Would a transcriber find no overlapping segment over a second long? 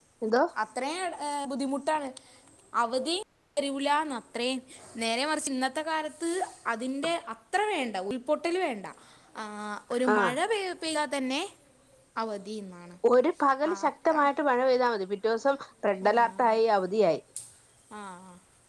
Yes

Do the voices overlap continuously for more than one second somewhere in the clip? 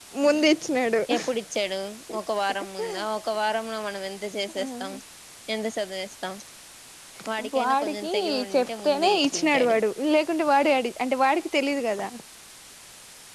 Yes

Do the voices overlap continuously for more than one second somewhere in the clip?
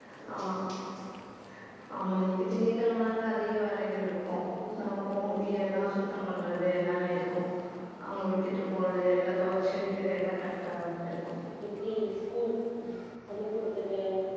No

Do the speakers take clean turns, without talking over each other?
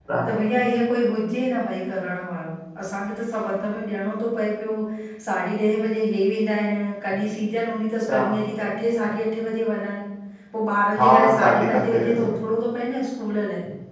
No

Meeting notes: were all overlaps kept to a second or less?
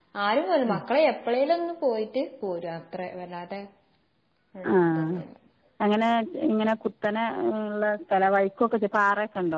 Yes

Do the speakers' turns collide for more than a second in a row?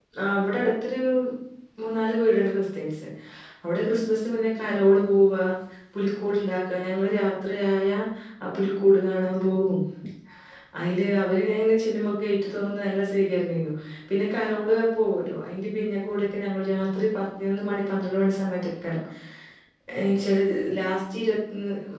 No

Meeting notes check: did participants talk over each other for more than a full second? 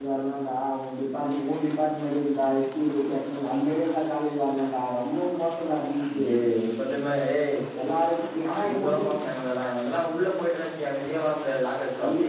No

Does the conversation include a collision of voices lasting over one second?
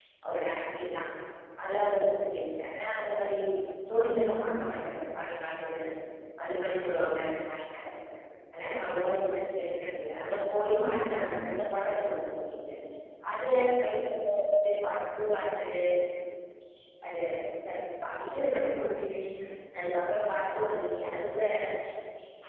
No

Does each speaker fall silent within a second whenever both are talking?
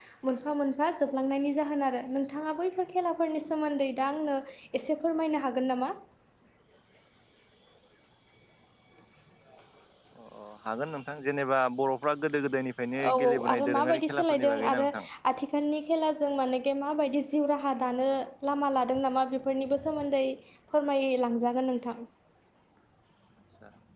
No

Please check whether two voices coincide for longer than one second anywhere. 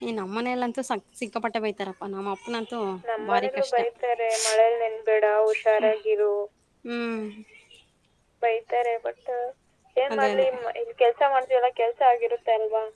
No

